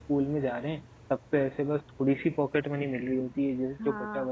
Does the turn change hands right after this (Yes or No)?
No